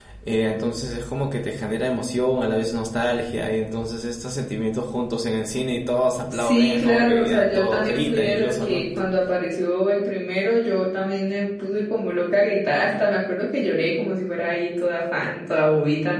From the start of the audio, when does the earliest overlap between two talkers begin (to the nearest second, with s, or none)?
6 s